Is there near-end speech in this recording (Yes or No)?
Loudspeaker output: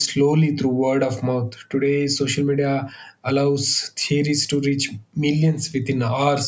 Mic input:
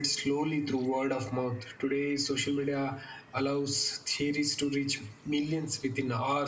No